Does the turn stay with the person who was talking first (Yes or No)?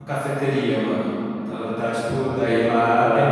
Yes